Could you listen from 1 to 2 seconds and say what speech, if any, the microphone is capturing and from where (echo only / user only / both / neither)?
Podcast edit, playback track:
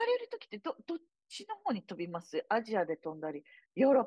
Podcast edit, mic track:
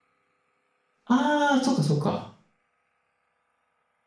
user only